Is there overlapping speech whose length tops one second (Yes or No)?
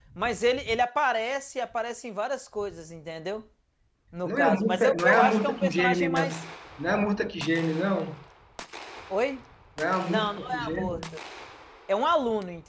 Yes